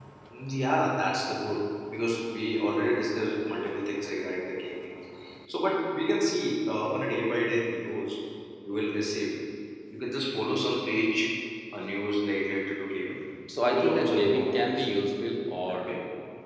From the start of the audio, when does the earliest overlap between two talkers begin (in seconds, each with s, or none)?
13.7 s